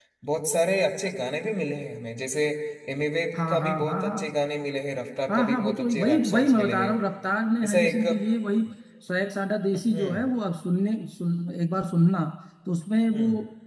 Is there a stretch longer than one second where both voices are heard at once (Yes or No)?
Yes